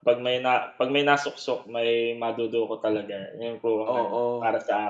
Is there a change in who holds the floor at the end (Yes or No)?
Yes